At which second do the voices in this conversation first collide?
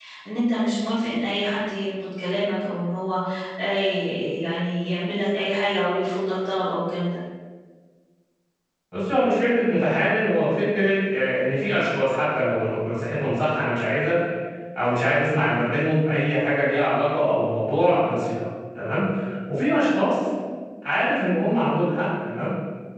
none

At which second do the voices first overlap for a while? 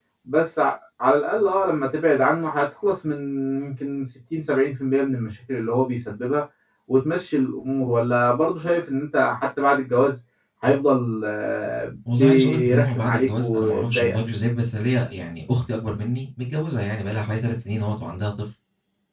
12.1 s

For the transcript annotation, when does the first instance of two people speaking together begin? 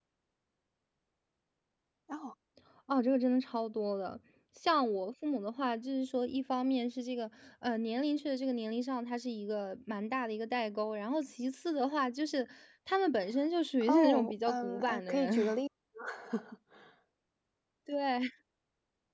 13.8 s

